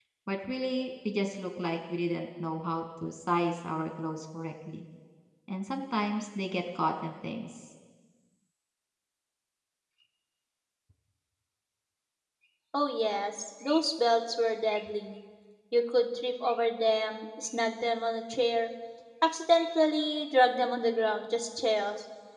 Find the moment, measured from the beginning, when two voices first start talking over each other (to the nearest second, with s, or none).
none